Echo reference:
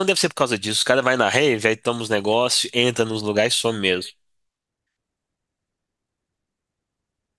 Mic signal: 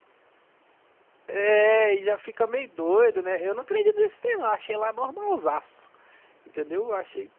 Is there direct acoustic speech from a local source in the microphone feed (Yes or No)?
Yes